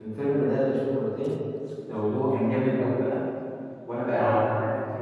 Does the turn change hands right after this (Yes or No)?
No